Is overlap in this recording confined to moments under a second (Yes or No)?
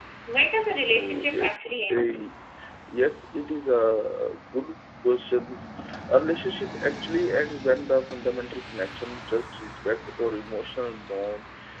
No